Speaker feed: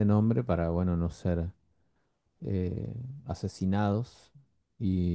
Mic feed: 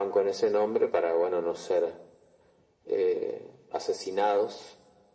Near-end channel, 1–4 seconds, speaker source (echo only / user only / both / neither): echo only